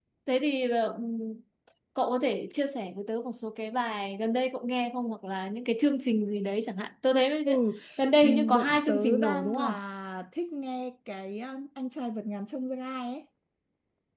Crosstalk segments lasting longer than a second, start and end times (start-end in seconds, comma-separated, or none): 8.2-9.8